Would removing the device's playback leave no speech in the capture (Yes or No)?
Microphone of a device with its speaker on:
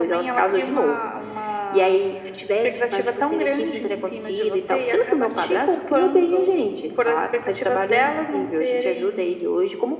Yes